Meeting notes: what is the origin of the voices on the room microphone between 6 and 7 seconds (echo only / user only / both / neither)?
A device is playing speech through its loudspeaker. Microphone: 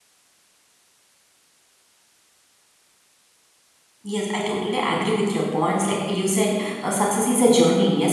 user only